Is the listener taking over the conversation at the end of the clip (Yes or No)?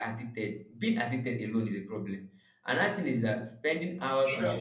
No